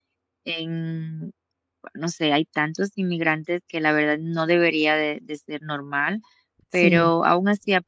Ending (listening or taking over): listening